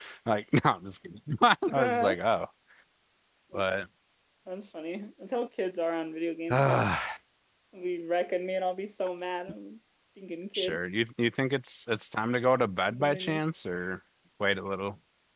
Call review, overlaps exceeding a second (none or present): none